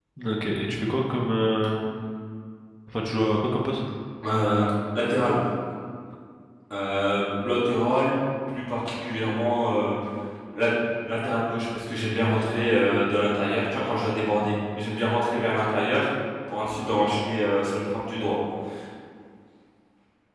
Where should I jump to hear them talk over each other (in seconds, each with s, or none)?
none